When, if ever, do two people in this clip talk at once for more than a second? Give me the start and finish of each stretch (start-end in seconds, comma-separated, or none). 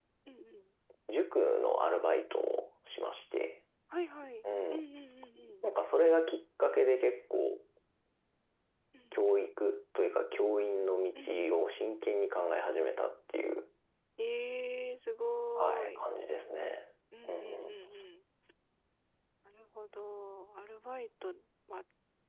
none